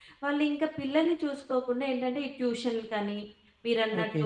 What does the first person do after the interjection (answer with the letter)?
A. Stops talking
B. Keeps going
B